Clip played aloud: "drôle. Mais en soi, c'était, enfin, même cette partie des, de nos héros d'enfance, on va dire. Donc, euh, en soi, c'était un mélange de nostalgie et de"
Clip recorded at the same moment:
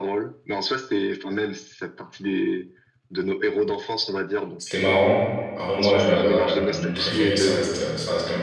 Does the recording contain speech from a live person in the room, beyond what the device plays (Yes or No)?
Yes